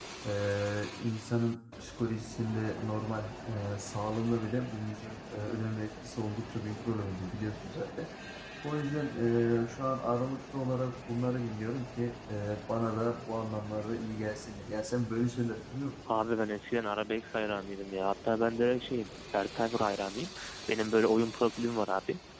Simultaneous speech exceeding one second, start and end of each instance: none

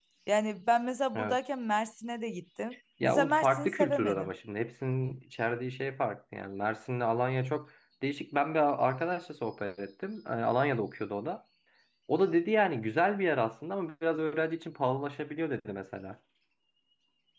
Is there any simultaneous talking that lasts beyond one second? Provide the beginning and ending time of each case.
3.0-4.3

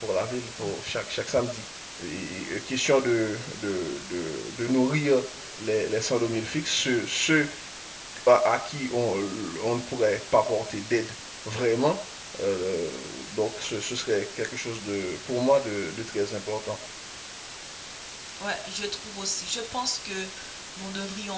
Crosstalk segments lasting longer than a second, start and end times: none

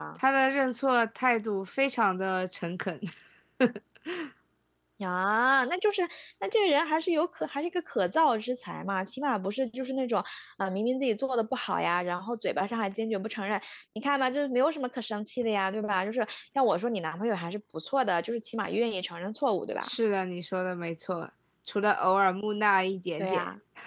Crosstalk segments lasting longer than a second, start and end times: none

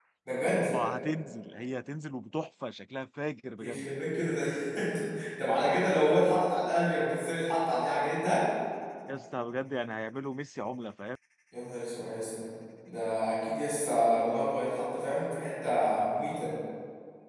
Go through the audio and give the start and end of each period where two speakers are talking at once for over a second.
none

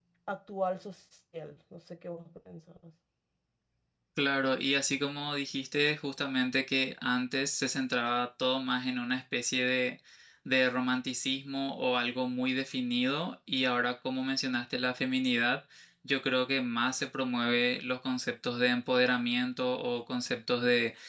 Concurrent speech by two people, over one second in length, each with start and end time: none

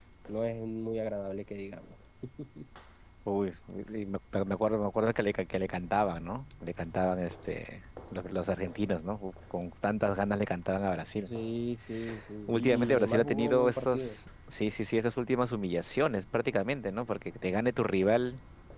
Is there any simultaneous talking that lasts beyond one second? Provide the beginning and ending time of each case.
12.5-14.2

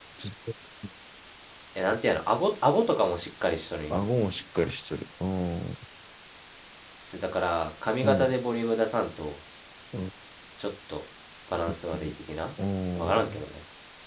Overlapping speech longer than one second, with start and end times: none

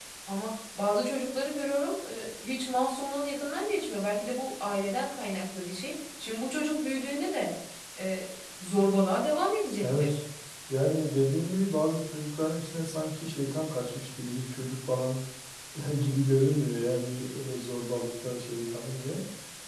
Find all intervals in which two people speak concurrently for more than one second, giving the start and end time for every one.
none

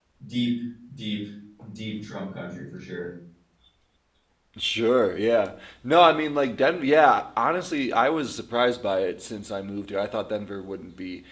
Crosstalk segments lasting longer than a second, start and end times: none

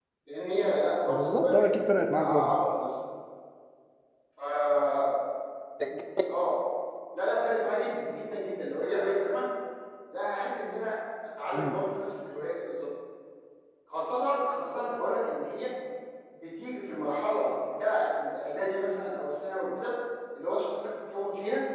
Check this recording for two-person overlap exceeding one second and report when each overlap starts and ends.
1.1-2.5

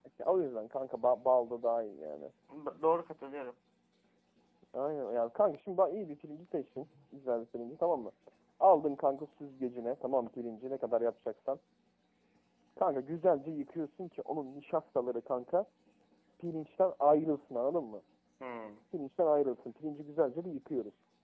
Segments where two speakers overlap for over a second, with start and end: none

